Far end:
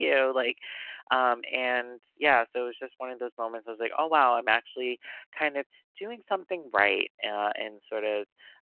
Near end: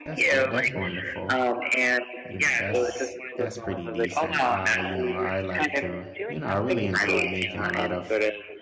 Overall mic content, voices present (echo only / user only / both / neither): both